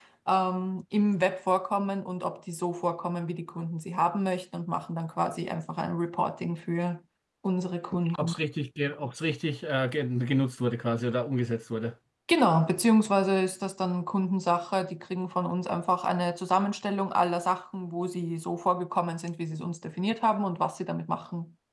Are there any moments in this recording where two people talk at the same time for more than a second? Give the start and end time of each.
none

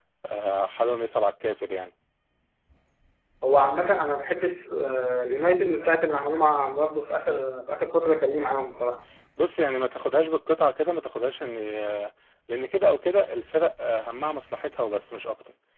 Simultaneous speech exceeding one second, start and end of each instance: none

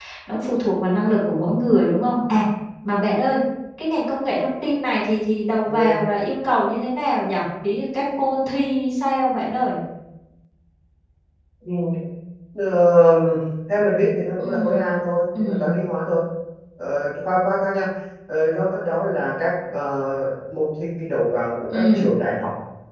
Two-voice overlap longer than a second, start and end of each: none

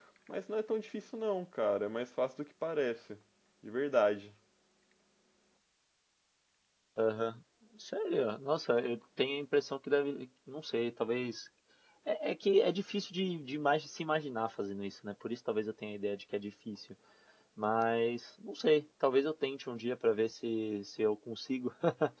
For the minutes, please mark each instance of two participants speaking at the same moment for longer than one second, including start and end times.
none

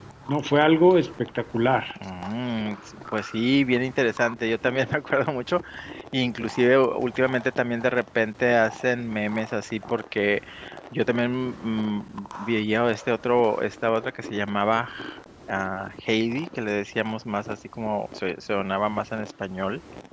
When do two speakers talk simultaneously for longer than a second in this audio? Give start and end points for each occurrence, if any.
none

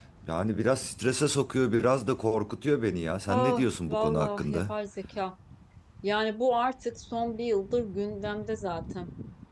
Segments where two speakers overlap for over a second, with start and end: 3.3-4.6

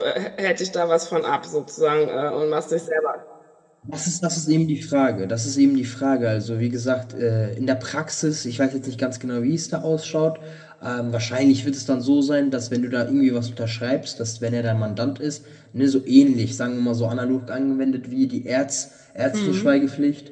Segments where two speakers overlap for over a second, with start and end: none

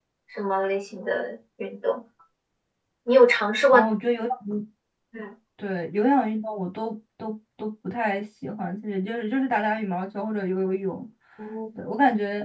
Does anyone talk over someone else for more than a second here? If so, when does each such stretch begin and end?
none

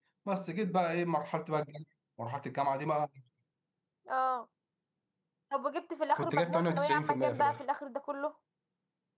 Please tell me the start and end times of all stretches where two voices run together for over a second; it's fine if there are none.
6.2-7.6

